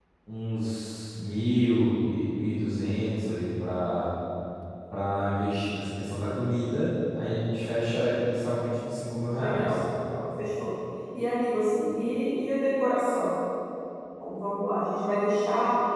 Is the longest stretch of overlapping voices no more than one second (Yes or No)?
Yes